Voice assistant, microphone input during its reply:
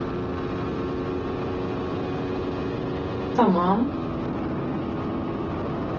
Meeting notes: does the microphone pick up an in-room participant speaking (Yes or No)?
Yes